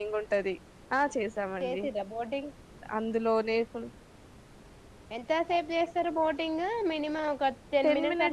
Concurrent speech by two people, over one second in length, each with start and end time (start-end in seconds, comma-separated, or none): none